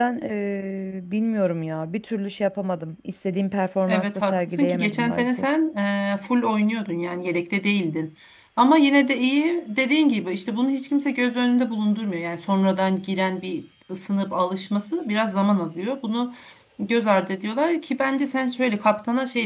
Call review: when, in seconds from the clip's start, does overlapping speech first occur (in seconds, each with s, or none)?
3.9 s